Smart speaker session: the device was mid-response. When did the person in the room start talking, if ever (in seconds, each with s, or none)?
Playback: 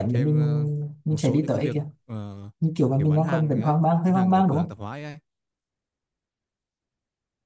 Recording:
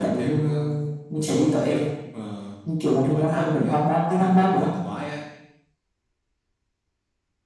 none